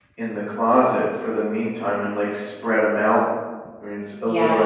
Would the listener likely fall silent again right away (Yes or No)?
No